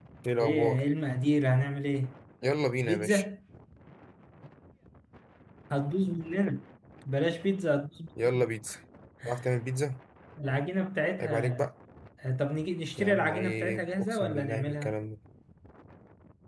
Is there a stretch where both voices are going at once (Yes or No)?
Yes